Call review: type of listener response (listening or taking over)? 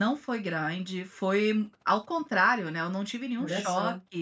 listening